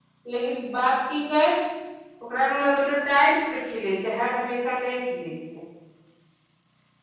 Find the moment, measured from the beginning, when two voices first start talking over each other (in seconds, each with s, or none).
none